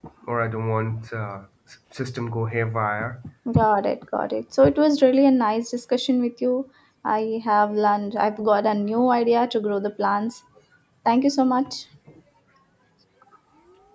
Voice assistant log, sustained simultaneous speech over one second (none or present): none